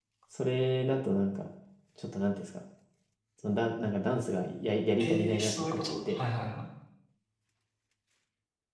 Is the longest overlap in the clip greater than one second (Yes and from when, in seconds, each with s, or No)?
Yes, from 5.0 s